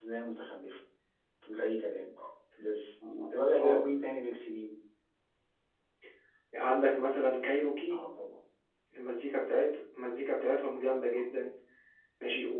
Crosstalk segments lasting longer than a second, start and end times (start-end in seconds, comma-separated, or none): none